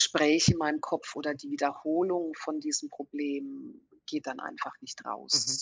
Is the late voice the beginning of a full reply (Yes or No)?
Yes